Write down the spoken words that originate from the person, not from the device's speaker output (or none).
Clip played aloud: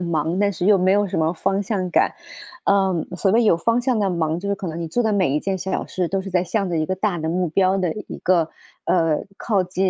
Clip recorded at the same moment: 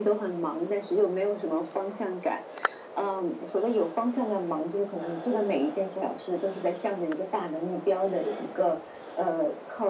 none